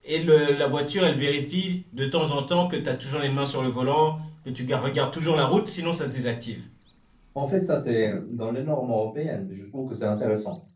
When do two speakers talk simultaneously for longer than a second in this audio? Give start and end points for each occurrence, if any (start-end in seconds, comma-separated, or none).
none